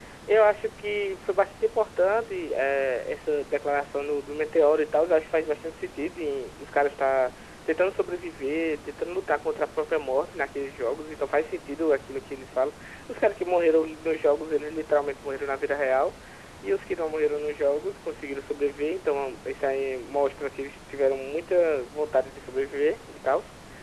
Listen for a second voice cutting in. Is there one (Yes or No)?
No